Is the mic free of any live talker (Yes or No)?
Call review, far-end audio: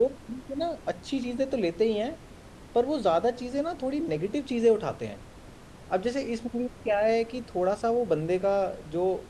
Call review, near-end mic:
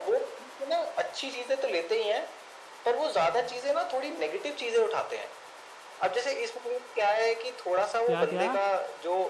No